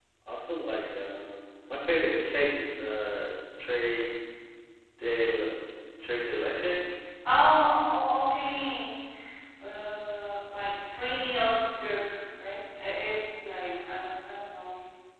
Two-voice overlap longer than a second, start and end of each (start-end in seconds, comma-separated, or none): none